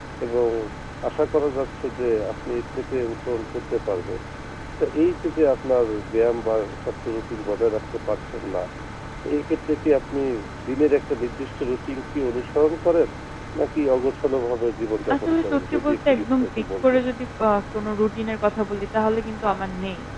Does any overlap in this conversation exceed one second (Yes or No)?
Yes